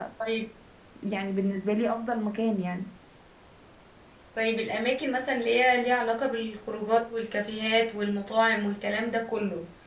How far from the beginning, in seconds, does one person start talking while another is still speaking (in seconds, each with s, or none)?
none